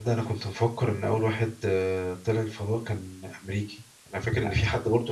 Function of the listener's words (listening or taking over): listening